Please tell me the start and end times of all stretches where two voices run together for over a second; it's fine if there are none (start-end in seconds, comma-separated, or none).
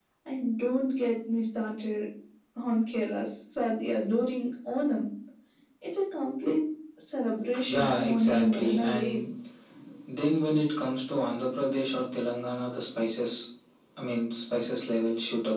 7.7-9.2